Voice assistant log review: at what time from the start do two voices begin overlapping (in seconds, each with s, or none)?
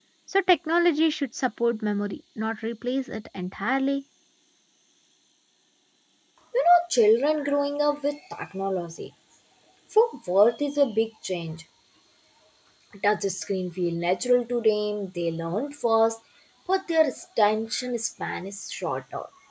none